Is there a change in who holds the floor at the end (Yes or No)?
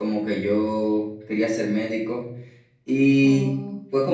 No